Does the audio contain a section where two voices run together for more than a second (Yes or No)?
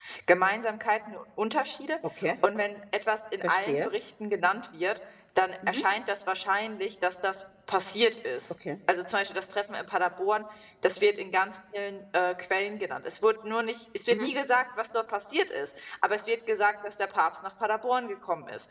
No